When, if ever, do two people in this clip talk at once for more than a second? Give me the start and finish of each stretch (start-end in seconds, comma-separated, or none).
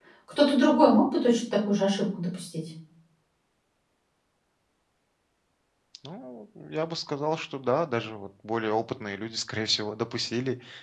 none